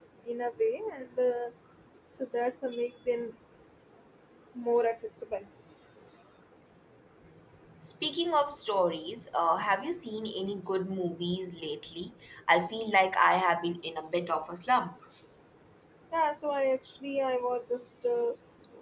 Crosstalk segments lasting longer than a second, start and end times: none

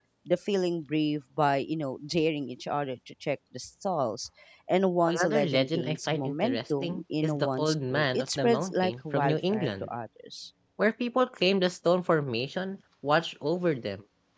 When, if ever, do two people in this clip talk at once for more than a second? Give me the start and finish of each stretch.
5.2-9.9

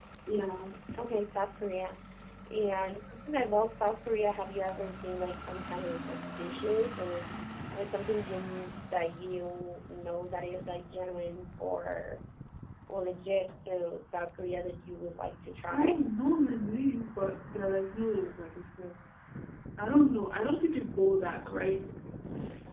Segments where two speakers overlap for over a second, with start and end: none

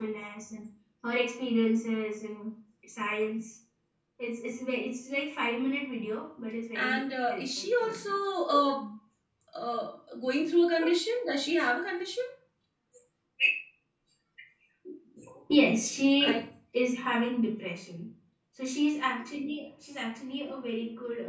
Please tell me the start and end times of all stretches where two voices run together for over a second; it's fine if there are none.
6.8-8.1

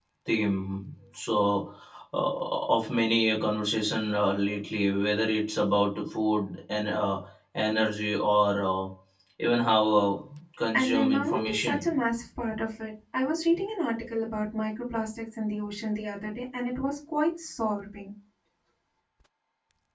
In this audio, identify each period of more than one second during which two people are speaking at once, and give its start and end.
10.7-12.0

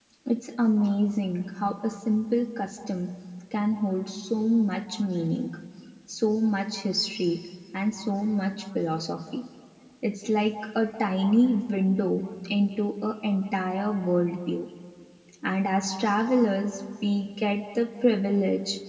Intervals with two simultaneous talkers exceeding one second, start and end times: none

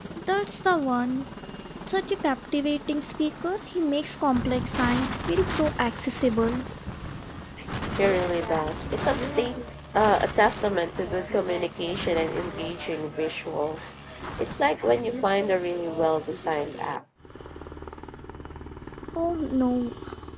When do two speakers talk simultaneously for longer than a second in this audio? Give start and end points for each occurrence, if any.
none

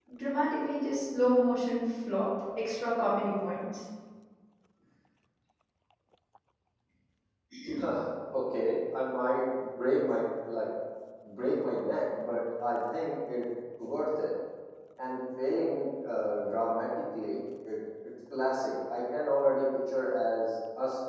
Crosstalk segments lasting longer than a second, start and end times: none

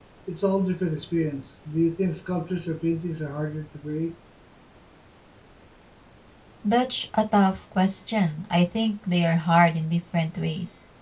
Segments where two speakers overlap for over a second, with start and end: none

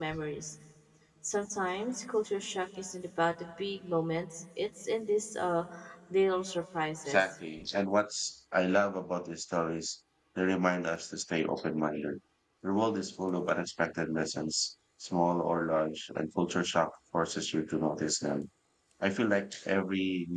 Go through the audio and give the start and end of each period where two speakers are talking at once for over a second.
none

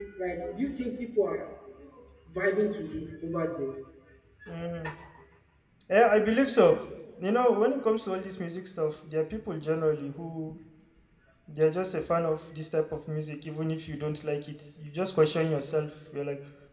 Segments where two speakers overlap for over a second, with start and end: none

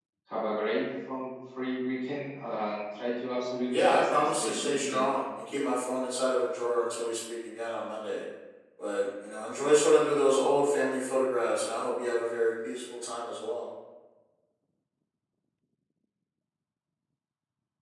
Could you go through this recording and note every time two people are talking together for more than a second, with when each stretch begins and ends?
3.9-5.1

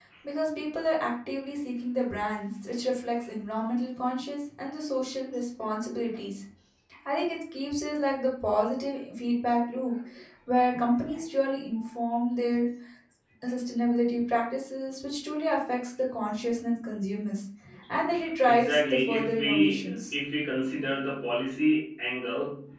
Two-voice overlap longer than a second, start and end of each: 18.5-20.1

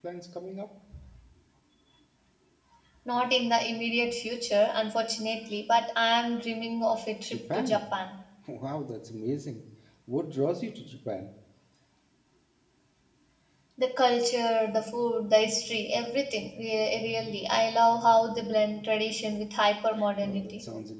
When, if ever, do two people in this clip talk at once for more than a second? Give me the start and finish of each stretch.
none

